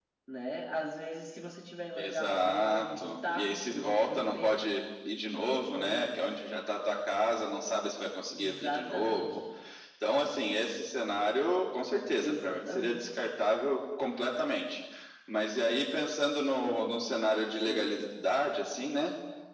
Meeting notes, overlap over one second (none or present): present